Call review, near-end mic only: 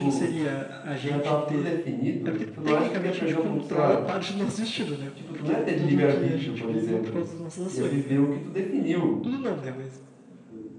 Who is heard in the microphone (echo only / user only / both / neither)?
both